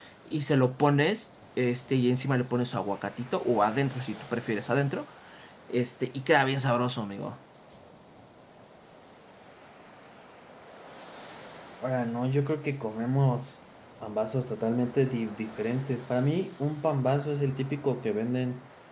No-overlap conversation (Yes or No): Yes